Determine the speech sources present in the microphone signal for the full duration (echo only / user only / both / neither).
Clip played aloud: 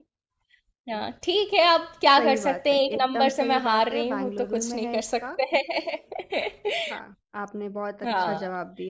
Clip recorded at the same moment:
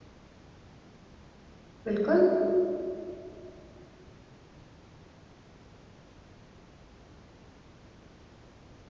user only